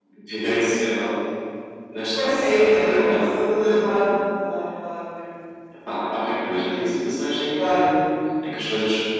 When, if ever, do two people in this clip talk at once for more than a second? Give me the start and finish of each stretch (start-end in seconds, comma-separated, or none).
2.1-3.7